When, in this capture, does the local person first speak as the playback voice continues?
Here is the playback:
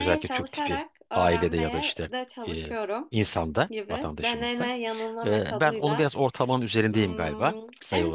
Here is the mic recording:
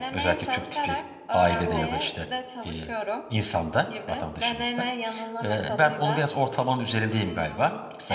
1.6 s

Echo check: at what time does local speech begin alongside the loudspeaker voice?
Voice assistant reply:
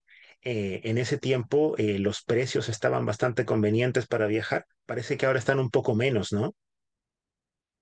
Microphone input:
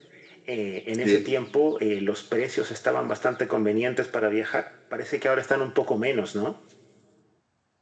1.0 s

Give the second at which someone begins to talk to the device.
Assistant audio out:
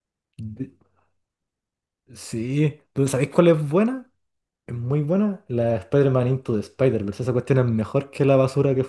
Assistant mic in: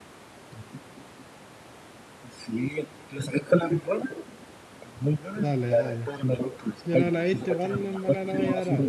5.3 s

